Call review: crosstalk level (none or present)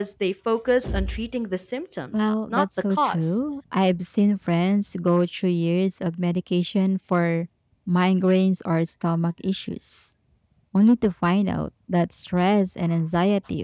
present